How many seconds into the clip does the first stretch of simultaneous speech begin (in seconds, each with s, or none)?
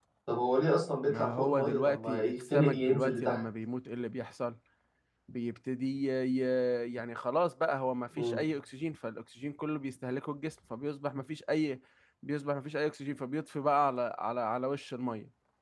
1.1 s